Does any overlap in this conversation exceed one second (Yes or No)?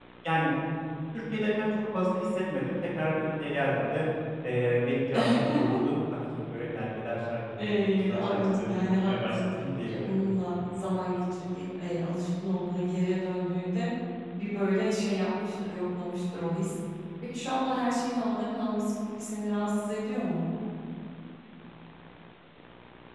Yes